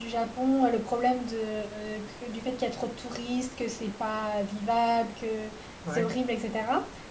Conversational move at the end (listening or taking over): listening